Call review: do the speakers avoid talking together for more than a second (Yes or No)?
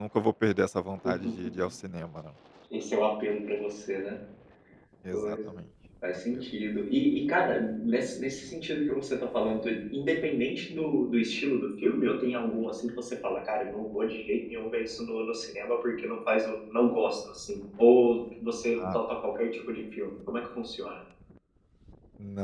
Yes